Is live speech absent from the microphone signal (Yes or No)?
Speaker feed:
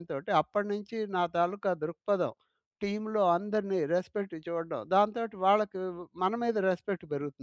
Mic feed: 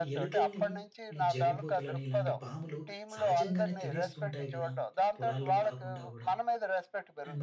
No